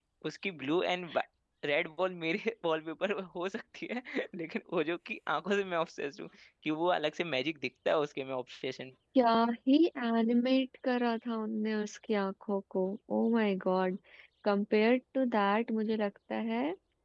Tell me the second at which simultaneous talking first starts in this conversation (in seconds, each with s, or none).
none